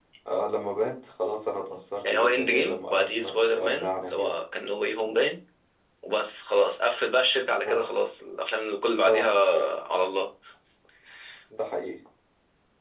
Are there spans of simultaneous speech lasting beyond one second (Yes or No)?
Yes